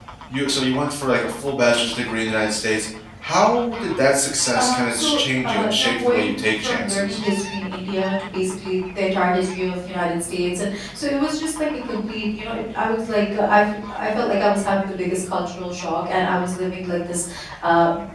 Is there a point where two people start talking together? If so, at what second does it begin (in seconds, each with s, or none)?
4.5 s